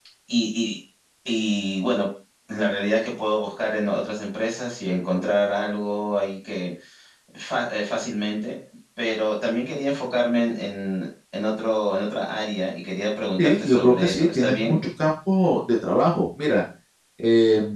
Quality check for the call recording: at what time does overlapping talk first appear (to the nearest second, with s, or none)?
13 s